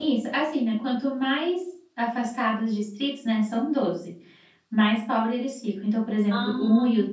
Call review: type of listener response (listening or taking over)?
listening